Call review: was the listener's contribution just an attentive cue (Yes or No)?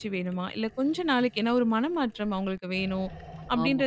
Yes